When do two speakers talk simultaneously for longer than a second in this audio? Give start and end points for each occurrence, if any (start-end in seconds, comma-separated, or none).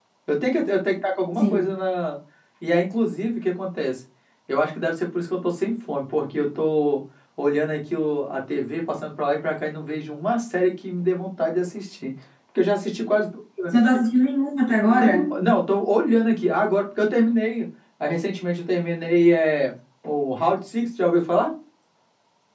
none